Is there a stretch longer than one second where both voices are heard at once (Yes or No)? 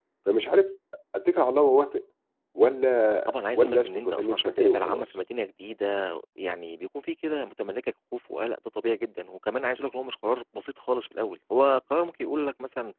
Yes